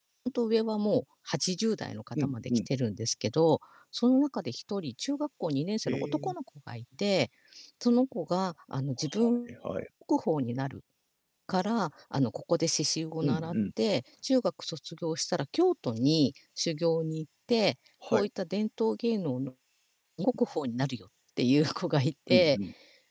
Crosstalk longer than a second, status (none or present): none